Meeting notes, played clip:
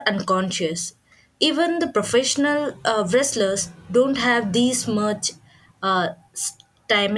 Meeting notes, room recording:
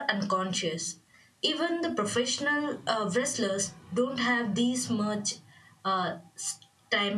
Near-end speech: none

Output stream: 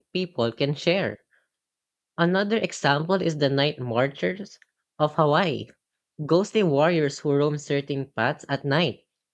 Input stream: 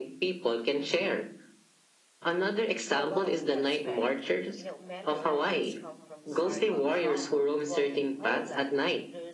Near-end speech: present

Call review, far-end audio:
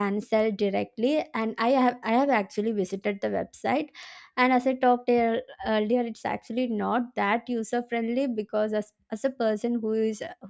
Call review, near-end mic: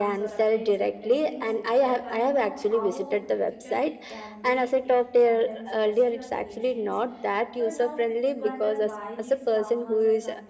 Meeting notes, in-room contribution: present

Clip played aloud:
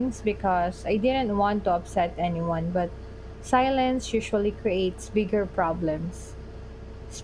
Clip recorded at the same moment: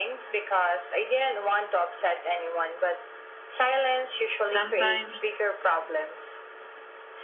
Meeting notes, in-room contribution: present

